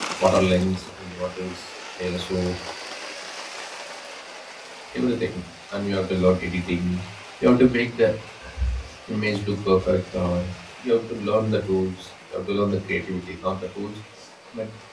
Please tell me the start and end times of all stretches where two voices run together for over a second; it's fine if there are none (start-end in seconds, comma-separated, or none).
none